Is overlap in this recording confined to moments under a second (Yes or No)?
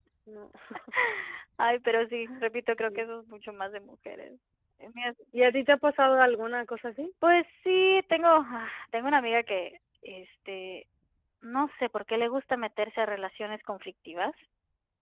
Yes